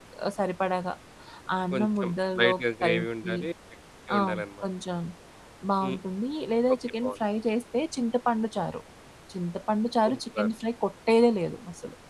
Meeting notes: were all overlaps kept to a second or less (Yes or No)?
No